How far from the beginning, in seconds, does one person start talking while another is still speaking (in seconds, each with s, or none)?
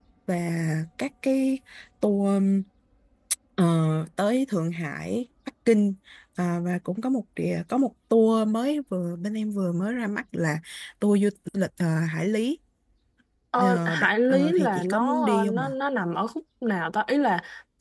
13.6 s